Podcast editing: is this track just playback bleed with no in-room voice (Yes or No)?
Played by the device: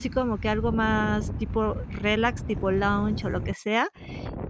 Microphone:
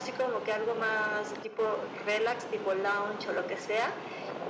Yes